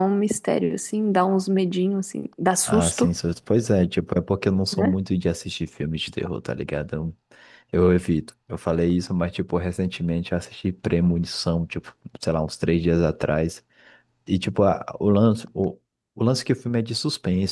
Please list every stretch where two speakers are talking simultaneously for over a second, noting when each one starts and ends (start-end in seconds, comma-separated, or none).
none